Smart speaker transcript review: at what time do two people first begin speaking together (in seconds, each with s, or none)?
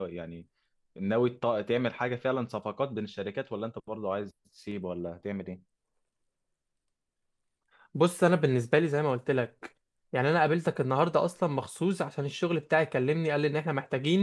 none